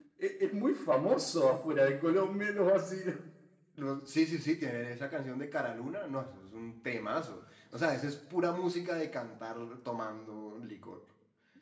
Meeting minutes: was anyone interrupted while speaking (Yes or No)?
No